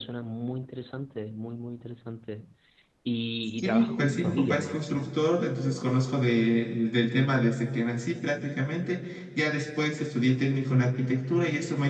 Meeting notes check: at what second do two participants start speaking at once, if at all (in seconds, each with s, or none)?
3.6 s